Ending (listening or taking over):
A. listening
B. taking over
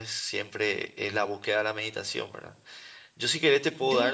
A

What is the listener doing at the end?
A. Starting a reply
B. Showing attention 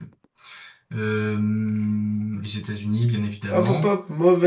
A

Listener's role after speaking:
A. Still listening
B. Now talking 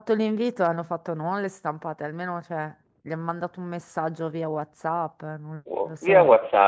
B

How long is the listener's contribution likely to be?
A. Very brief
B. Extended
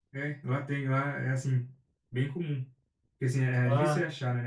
A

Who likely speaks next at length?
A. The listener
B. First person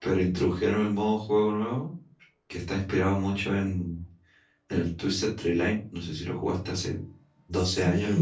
A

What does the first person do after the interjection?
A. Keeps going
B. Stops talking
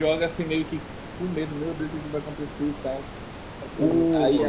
A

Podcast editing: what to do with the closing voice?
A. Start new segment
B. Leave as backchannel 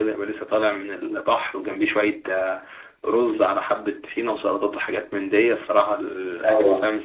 A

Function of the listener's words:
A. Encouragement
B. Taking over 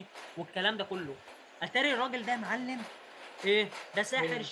A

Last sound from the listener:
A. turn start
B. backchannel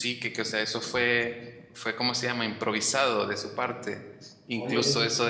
B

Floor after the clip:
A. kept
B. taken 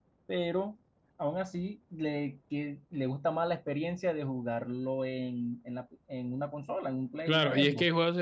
B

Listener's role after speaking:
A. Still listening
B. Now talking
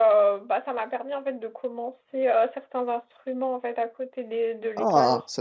B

